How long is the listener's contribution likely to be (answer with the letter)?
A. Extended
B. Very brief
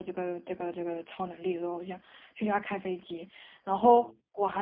B